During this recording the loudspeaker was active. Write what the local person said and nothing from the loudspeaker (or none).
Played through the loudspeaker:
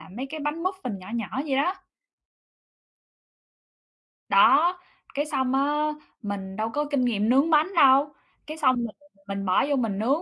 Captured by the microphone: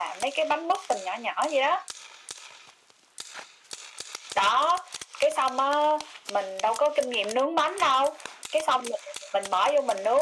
none